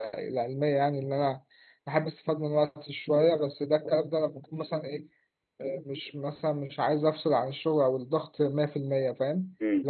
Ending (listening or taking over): listening